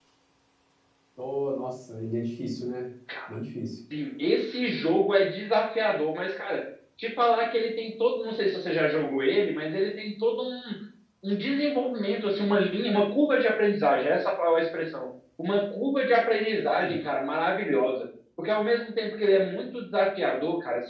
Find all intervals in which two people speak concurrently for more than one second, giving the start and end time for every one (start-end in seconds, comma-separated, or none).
none